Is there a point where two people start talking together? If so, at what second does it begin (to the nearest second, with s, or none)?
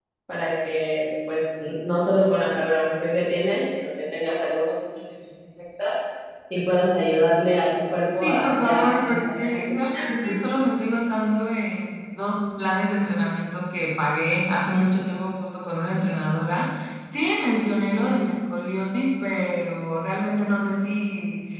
8 s